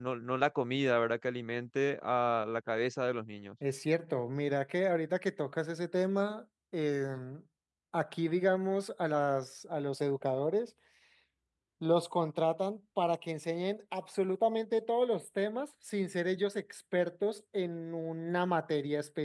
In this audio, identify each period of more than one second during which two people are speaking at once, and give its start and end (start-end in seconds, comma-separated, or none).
none